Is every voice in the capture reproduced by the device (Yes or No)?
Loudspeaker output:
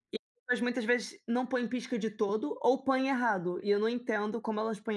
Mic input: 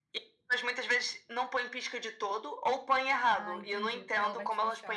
No